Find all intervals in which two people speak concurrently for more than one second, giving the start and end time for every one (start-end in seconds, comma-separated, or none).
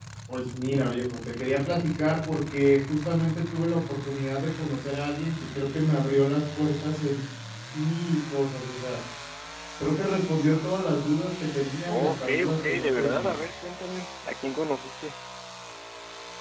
11.9-13.3